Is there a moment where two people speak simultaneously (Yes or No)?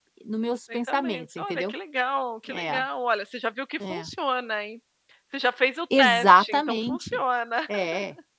Yes